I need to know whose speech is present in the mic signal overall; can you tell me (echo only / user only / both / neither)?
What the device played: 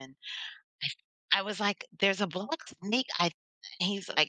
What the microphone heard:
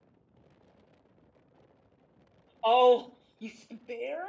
user only